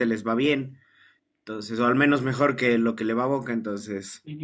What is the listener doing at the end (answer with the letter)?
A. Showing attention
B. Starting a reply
B